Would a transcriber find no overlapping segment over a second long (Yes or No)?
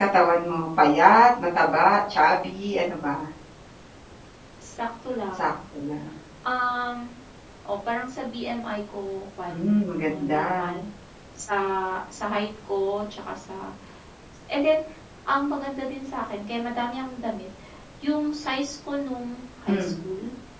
No